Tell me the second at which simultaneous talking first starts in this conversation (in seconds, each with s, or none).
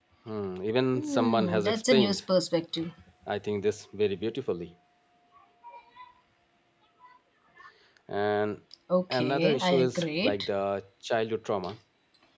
1.0 s